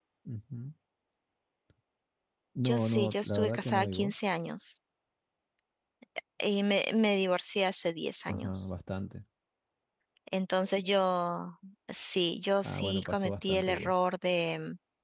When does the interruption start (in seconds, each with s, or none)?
2.6 s